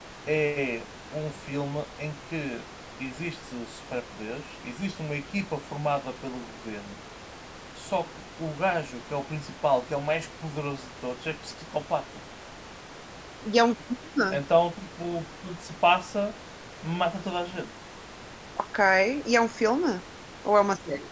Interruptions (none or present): none